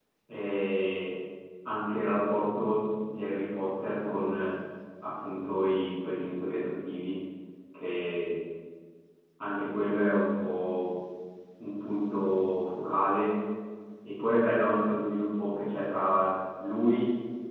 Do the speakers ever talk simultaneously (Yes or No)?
No